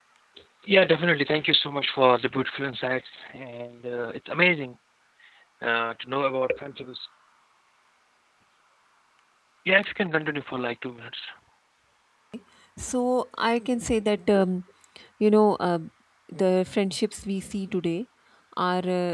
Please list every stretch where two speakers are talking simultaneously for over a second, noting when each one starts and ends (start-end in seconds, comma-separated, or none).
none